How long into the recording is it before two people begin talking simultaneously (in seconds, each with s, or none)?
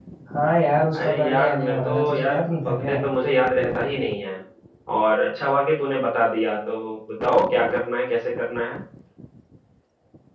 1.0 s